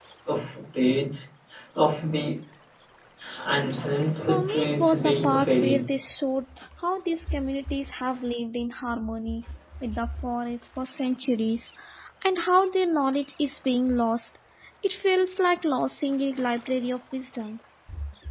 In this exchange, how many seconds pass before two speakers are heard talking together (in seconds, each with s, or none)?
4.3 s